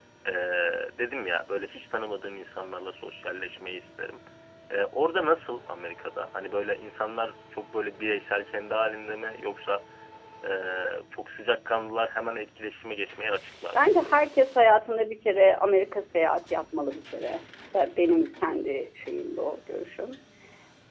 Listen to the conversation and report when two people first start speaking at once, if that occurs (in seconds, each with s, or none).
none